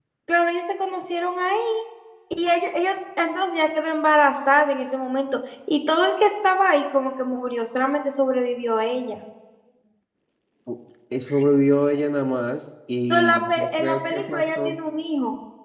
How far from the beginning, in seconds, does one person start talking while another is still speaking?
13.1 s

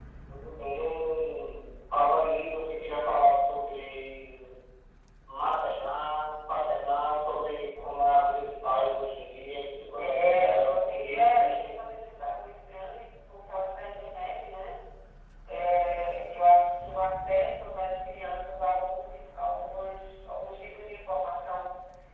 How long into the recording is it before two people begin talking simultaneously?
9.9 s

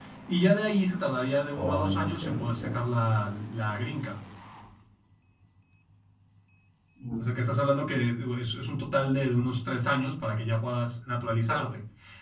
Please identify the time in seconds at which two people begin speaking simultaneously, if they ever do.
1.6 s

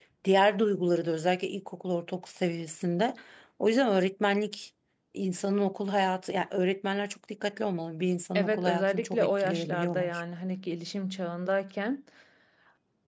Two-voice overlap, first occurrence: 8.3 s

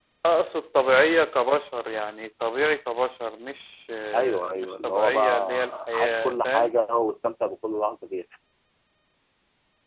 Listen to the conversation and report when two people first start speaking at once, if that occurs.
4.1 s

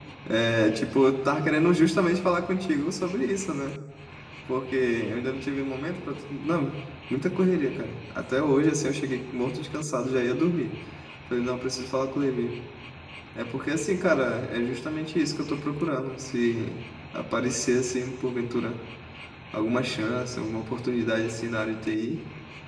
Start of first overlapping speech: none

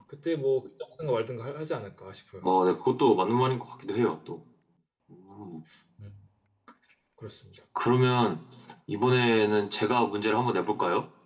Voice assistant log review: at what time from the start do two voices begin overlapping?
none

